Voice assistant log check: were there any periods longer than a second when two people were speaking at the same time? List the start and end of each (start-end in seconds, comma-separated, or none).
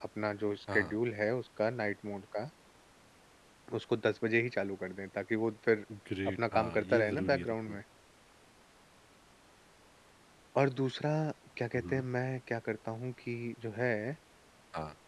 6.5-7.8